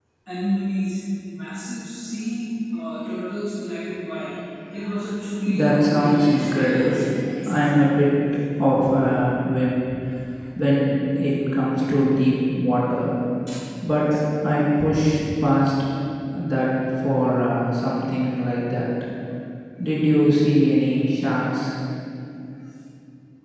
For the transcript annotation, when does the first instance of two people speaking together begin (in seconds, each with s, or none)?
5.5 s